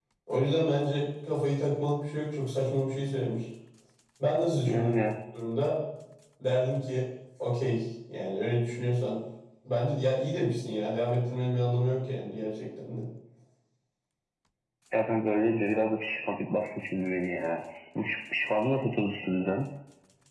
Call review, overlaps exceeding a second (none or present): none